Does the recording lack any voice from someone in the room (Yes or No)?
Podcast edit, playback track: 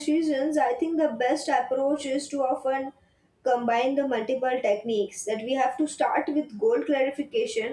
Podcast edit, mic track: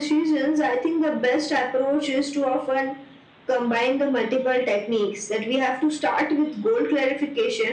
Yes